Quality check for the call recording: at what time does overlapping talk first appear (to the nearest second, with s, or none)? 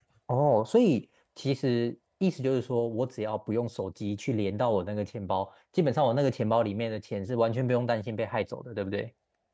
none